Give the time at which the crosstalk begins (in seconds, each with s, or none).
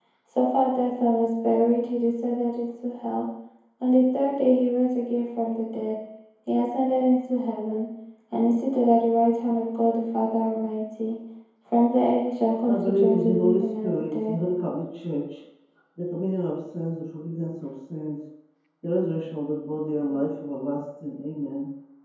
12.7 s